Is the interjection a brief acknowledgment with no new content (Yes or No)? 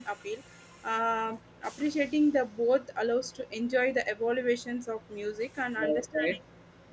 No